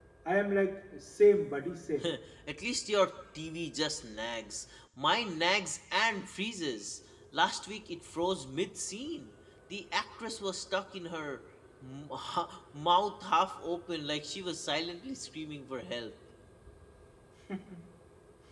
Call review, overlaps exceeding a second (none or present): none